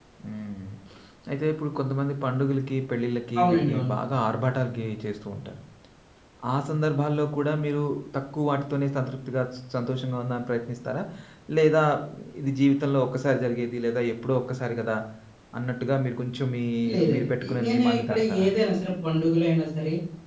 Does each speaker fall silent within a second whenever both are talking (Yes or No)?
No